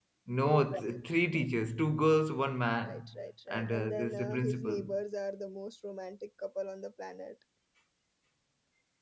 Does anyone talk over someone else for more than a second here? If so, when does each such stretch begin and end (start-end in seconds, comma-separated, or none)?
3.5-4.9